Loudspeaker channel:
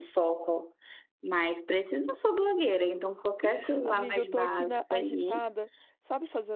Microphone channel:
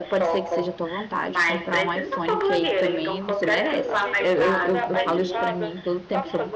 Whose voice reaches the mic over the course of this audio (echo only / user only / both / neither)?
both